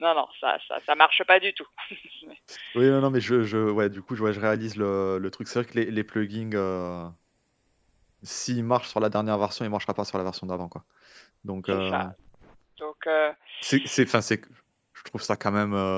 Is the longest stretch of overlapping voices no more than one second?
Yes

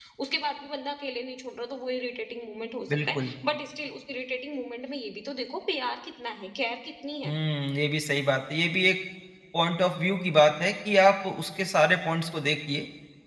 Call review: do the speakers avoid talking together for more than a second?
Yes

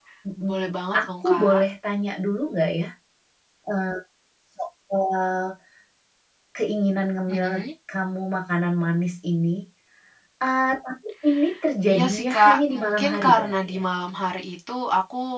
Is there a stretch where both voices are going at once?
Yes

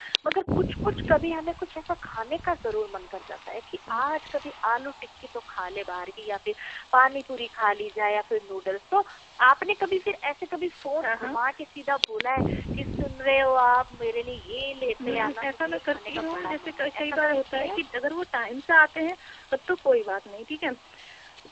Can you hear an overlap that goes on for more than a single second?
Yes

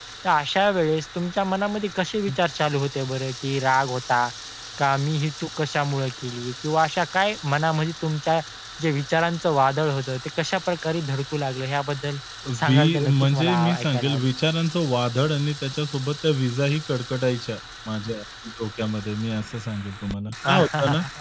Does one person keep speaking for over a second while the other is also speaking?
Yes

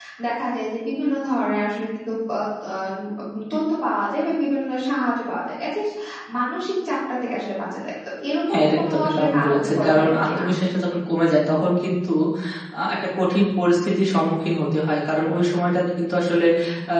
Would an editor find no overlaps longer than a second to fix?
No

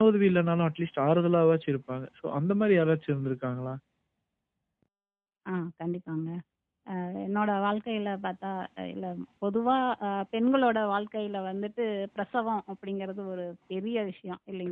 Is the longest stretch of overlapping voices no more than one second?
Yes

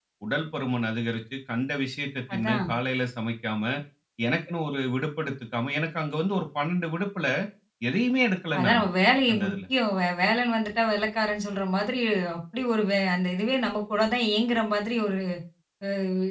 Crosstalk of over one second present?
No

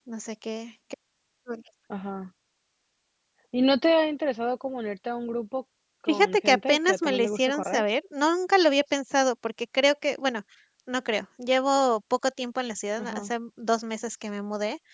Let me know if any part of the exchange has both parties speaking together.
Yes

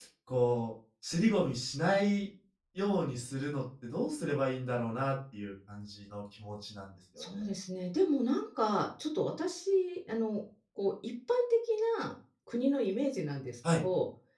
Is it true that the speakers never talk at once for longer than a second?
Yes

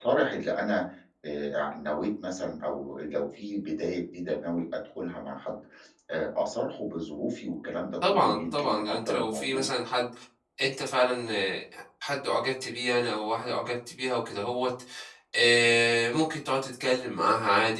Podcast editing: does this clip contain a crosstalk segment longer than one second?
Yes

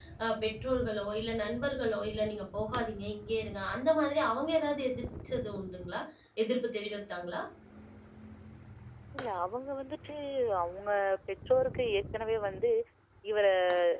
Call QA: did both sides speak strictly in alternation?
Yes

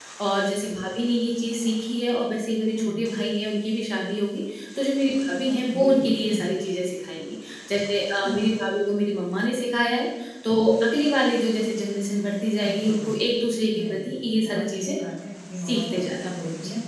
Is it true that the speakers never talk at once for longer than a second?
No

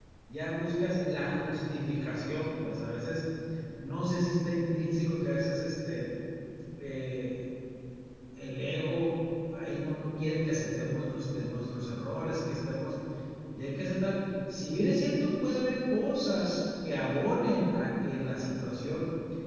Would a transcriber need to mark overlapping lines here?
No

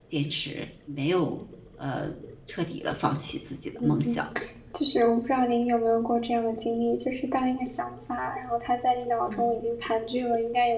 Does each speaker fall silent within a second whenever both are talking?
Yes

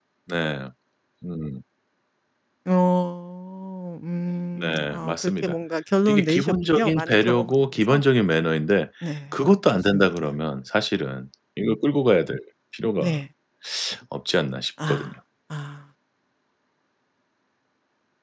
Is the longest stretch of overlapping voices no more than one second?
No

